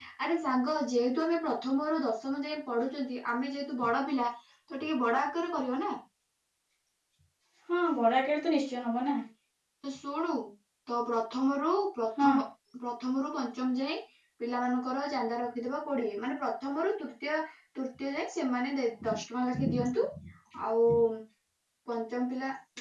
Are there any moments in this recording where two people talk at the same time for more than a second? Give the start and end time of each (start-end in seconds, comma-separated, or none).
none